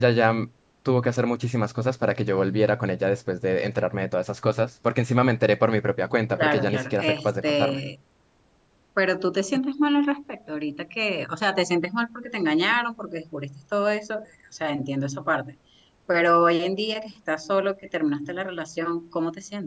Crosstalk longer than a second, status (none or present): present